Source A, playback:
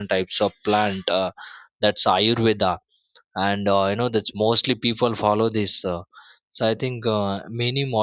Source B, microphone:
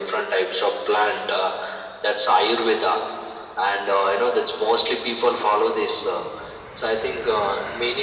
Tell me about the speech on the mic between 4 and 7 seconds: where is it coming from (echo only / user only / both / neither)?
echo only